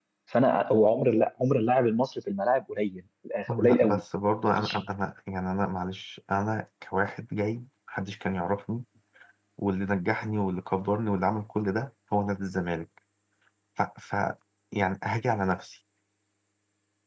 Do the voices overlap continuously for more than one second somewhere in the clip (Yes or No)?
No